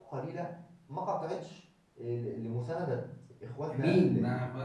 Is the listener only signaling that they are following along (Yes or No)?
No